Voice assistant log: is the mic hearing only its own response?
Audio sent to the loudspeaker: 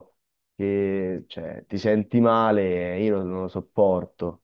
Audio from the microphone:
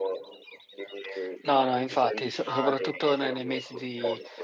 No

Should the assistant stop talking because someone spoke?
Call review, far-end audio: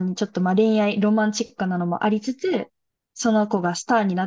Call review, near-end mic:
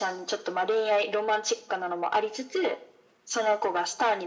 No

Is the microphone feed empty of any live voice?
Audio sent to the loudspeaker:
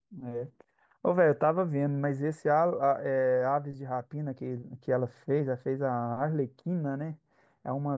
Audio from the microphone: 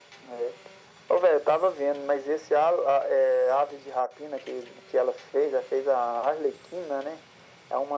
Yes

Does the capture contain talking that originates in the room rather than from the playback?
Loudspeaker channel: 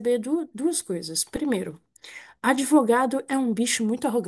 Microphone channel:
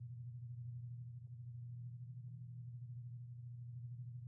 No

